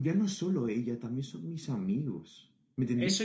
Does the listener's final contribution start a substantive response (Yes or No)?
Yes